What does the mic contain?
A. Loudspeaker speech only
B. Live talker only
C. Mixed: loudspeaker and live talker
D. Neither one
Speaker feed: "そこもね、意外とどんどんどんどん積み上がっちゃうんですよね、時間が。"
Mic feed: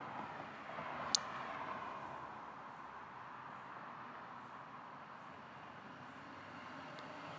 D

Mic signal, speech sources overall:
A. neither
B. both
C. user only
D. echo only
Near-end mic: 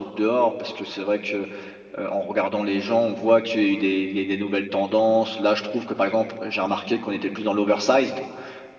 D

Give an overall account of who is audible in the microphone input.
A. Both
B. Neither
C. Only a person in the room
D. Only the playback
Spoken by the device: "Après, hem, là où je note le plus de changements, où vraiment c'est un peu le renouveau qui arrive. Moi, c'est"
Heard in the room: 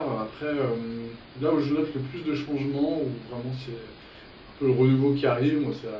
D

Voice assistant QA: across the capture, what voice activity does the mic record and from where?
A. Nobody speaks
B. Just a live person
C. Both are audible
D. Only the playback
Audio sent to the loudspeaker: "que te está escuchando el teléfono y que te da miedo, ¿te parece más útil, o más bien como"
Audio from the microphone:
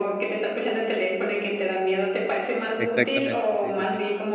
C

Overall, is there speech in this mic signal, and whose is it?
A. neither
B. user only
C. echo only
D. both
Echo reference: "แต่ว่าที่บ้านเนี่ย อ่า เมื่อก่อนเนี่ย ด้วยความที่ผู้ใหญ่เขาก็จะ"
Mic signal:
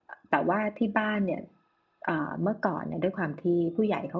C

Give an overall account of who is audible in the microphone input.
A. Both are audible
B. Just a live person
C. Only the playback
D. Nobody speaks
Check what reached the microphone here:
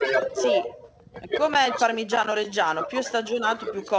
A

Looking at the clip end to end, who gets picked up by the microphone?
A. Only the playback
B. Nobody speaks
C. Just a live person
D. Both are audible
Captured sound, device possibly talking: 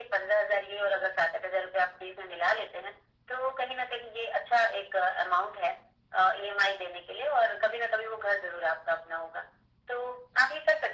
A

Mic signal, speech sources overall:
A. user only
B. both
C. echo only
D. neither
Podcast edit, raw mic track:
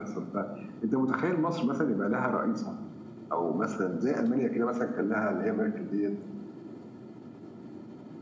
C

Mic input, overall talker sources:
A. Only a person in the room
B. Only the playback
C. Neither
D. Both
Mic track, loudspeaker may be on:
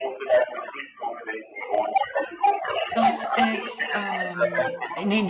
D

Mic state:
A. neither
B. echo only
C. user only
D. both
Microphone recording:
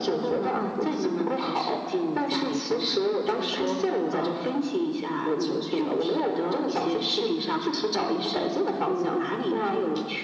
B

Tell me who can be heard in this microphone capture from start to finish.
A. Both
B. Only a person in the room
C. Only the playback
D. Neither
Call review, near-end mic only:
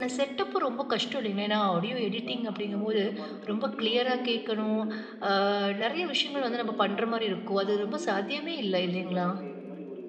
A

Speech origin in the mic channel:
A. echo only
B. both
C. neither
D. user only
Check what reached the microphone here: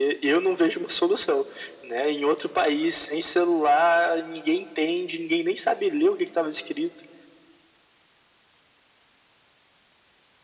A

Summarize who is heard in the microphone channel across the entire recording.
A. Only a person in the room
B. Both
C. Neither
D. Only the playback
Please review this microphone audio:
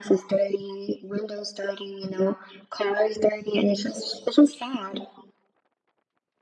D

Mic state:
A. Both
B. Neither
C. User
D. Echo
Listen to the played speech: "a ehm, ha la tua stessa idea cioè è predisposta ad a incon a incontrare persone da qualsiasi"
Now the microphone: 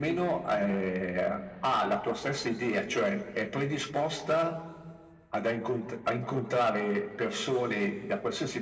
D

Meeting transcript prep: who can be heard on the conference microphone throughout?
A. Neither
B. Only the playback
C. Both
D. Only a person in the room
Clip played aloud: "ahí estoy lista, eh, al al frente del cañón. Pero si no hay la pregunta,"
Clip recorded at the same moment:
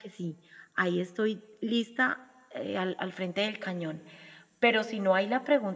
B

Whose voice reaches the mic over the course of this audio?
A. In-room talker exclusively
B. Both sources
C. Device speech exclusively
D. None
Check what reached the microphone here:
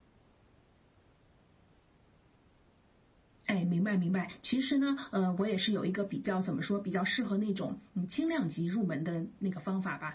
C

